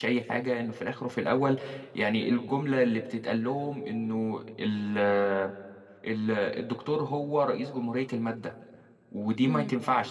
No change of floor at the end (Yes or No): Yes